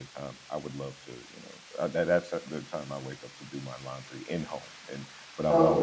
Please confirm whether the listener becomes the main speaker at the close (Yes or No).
No